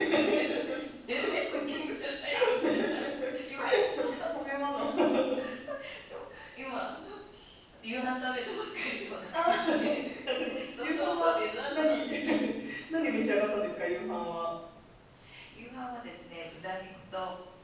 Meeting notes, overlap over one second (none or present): present